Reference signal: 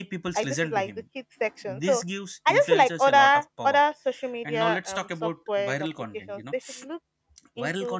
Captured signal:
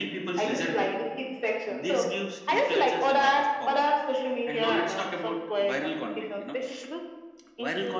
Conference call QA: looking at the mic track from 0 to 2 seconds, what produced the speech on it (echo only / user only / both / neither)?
echo only